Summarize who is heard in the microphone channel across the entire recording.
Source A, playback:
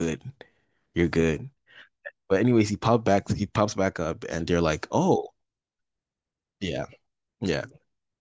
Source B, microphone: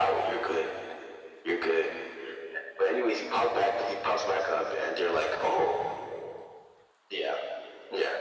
echo only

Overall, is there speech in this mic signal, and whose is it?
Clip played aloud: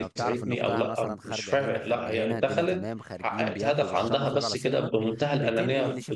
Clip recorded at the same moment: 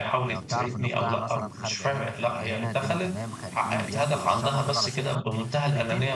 echo only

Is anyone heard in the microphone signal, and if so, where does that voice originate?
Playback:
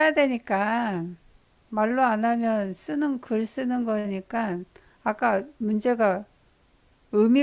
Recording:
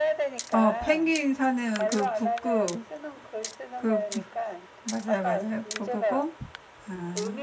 both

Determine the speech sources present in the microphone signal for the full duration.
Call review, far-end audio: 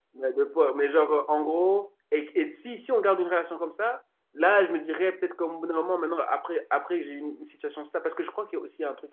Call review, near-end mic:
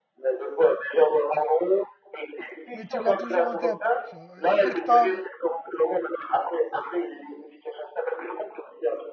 both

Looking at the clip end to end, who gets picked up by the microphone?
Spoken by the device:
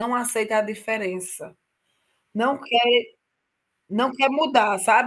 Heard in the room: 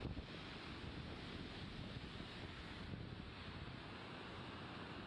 neither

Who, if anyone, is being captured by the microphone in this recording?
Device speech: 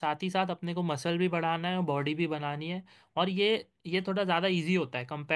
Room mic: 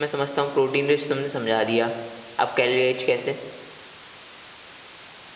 user only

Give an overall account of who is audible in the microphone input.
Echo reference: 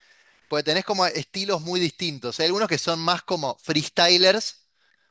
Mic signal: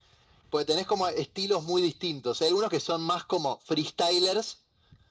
echo only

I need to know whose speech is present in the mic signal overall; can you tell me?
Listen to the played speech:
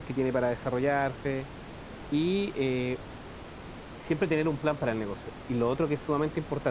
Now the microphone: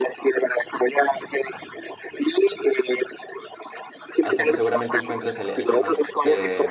both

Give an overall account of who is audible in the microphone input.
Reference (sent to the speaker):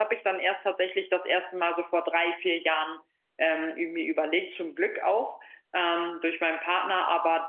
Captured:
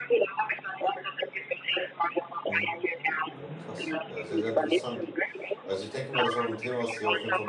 both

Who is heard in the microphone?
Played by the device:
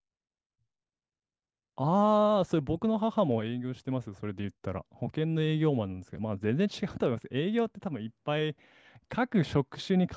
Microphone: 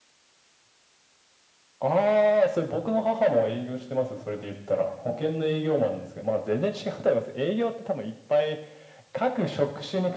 echo only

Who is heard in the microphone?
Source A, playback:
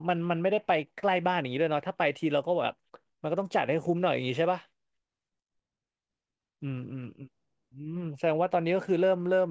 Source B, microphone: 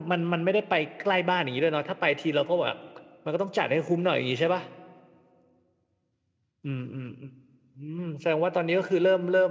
echo only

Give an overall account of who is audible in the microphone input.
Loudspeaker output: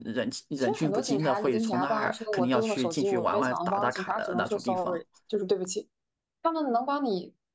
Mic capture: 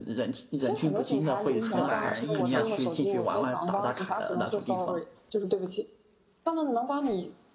both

